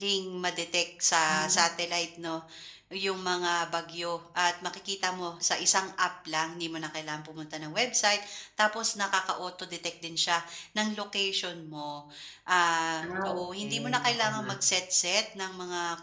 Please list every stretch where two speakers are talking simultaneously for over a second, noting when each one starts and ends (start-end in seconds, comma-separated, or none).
13.2-14.5